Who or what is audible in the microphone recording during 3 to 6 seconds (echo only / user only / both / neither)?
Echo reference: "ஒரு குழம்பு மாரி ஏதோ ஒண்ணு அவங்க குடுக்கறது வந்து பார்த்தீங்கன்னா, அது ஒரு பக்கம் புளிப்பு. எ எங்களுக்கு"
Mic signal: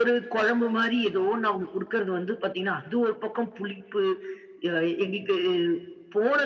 echo only